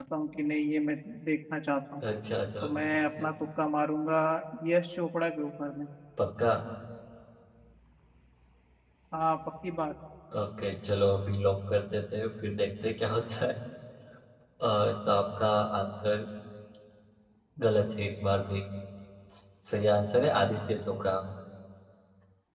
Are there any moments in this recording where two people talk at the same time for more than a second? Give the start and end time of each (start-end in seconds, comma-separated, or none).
none